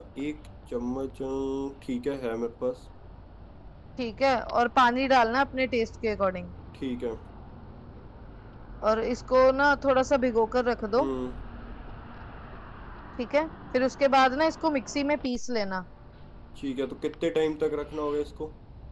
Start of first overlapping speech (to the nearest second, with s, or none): none